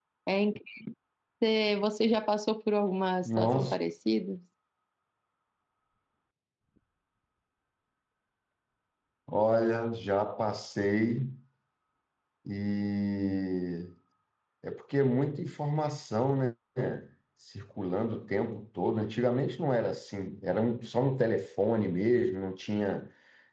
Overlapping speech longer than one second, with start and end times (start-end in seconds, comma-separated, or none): none